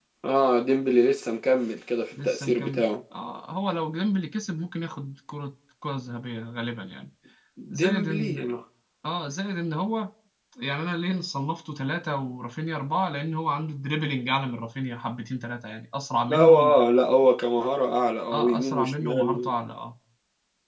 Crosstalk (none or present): present